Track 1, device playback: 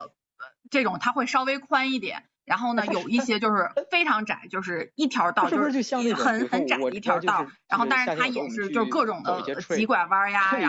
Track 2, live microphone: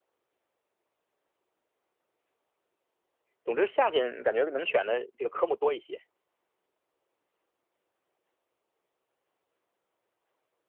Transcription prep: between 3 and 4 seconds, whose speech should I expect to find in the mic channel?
user only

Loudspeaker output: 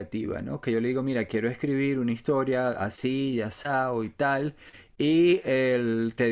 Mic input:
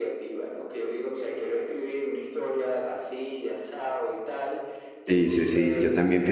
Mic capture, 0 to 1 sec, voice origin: echo only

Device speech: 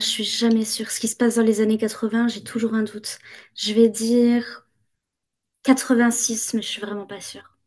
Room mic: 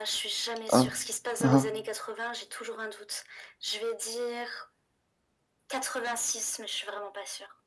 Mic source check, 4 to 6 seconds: echo only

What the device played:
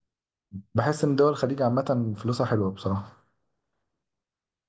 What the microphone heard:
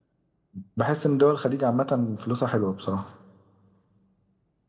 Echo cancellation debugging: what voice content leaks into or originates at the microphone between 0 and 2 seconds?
echo only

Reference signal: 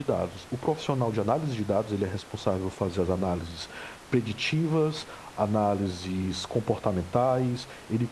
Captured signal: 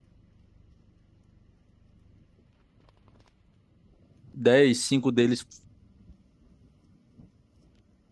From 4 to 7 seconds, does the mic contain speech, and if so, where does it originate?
user only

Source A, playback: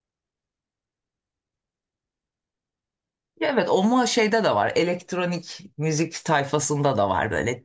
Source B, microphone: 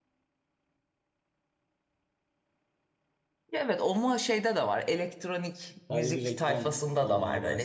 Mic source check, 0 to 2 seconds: neither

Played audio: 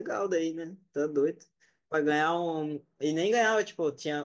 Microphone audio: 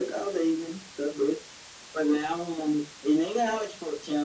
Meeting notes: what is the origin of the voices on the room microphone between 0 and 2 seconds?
echo only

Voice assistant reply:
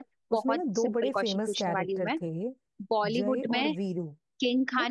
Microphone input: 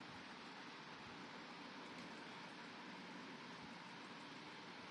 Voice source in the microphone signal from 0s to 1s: neither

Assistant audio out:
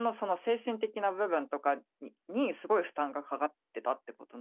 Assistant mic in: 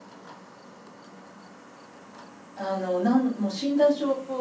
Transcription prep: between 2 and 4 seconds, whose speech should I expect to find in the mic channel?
user only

